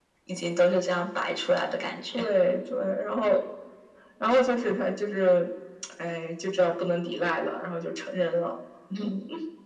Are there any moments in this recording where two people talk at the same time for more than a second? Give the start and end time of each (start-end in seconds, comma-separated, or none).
none